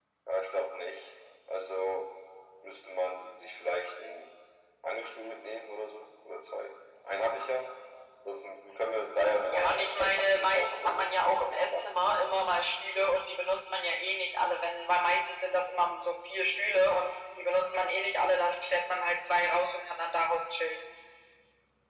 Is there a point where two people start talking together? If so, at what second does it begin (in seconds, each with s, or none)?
9.4 s